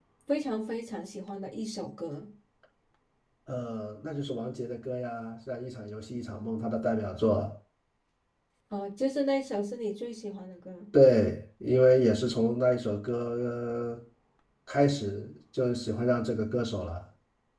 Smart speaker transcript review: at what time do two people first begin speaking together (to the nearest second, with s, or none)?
none